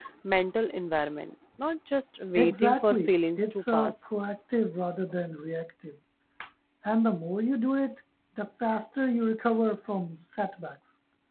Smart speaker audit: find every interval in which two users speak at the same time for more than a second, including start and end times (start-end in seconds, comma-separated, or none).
2.4-4.1